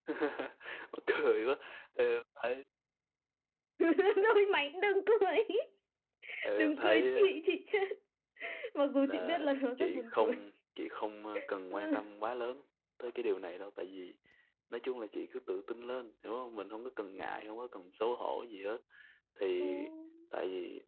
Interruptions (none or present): present